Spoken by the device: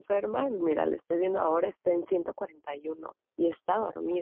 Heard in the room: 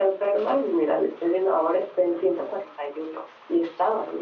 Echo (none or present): present